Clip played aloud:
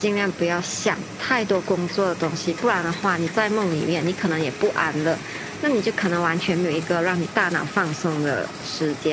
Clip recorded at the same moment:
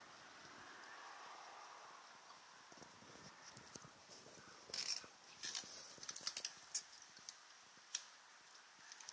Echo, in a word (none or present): none